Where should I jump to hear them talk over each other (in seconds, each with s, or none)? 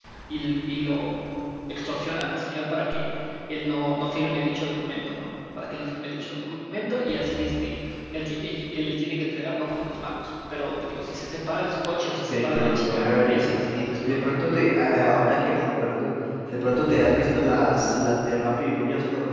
12.2 s